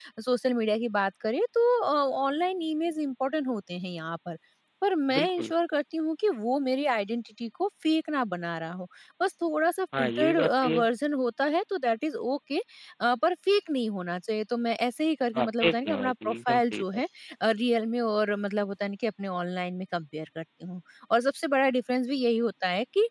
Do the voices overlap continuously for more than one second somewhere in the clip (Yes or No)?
Yes